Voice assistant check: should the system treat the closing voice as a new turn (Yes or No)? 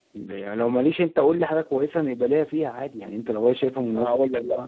Yes